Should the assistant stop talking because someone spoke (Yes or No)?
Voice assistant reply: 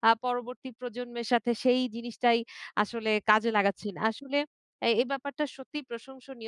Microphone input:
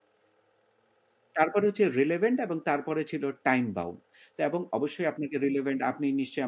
Yes